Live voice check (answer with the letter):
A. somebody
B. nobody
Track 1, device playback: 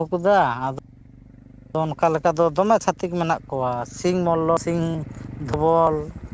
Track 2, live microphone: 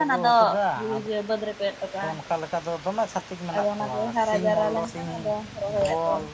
A